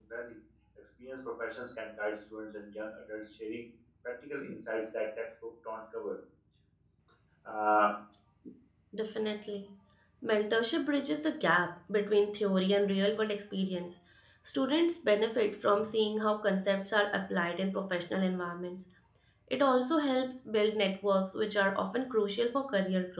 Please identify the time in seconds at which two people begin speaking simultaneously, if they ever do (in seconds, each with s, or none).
none